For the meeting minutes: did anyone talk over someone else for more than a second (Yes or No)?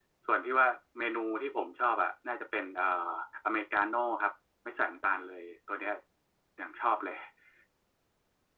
No